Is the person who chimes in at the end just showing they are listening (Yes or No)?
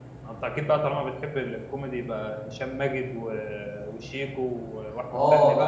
No